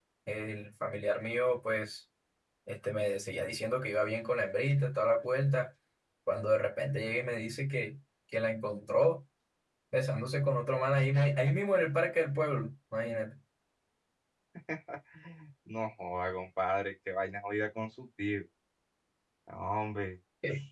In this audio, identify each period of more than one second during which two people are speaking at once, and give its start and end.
none

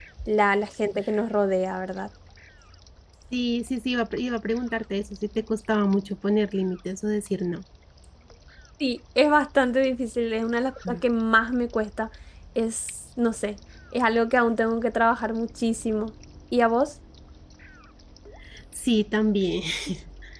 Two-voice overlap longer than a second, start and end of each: none

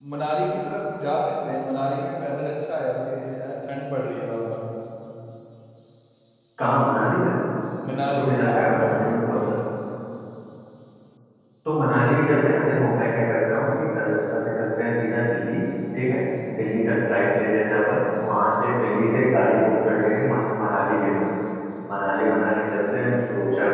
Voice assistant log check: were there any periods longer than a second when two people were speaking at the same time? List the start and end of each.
7.9-9.4

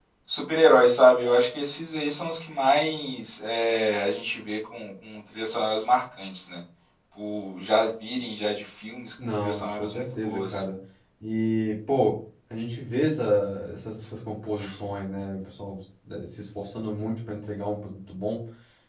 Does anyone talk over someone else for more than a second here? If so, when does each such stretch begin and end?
9.4-10.6

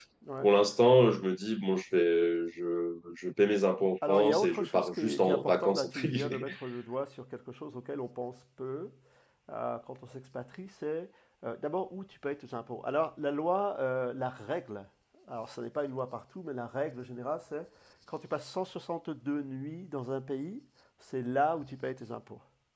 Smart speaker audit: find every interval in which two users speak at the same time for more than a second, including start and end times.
4.1-6.5

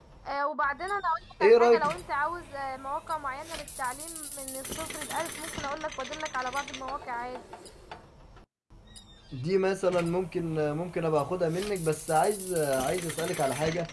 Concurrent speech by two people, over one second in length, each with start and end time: none

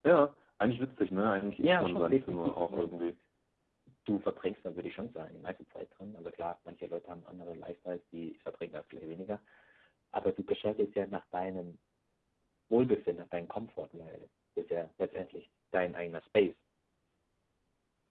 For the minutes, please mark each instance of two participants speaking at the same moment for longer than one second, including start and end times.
1.6-3.0

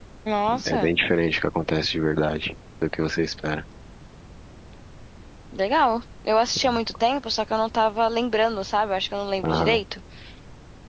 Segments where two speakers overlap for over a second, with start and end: none

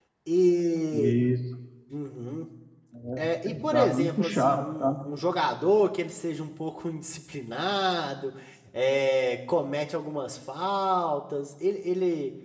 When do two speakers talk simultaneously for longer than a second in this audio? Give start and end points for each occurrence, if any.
3.5-4.9

